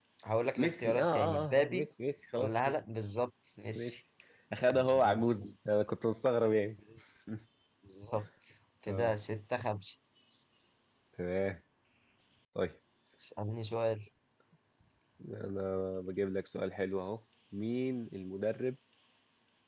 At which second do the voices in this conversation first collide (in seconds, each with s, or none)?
0.6 s